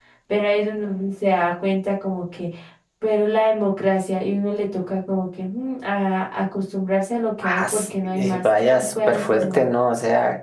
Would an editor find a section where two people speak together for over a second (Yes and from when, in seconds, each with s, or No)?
Yes, from 7.4 s